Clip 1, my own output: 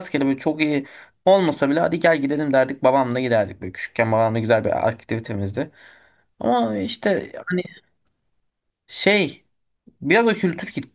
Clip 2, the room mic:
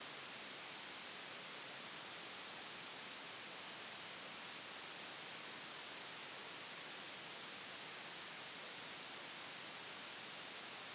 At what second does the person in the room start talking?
none

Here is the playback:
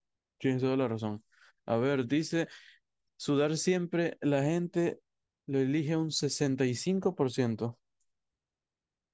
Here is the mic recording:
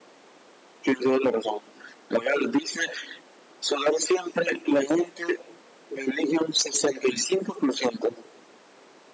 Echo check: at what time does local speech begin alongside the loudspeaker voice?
none

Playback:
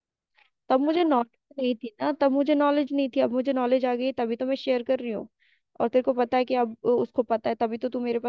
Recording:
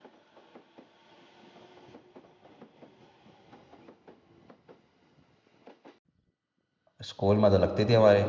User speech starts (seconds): 7.0 s

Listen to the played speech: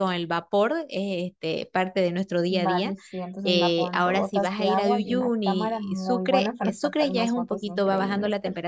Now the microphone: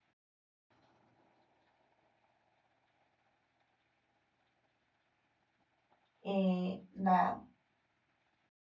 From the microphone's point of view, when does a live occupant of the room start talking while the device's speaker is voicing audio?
6.2 s

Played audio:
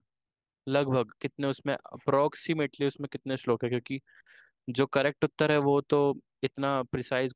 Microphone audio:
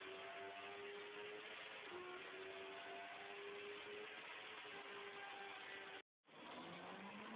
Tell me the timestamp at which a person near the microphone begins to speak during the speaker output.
none

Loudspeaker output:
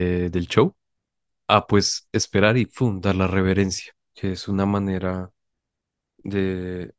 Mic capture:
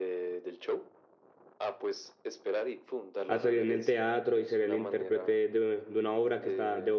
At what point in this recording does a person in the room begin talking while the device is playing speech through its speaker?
3.3 s

